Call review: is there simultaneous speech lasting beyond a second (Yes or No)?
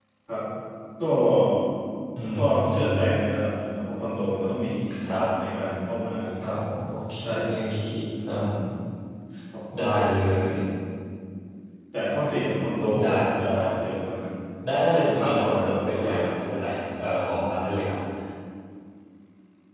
Yes